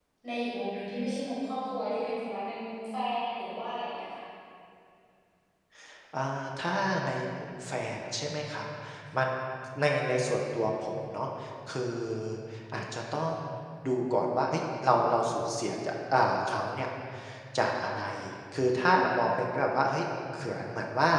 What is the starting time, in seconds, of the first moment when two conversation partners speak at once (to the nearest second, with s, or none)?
none